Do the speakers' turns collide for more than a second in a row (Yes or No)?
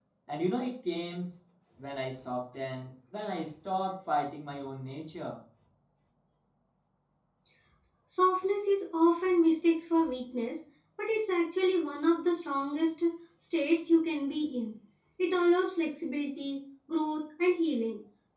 No